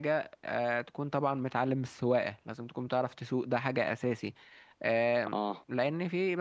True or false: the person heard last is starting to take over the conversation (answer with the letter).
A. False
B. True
A